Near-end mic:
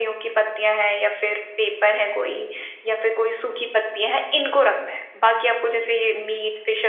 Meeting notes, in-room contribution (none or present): none